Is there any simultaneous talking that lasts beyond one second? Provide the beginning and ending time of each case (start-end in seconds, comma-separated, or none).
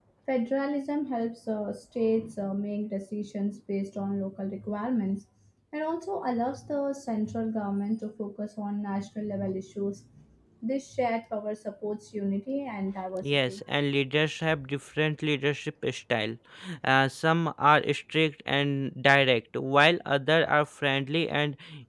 none